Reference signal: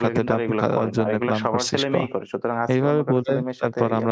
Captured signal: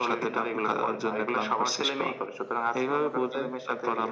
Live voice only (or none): none